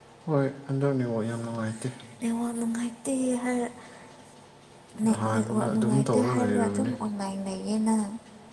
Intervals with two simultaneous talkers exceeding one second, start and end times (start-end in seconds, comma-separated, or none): 5.0-6.9